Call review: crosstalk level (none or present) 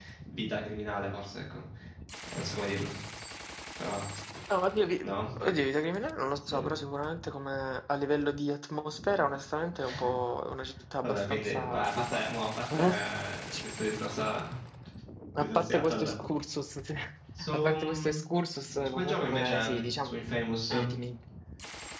present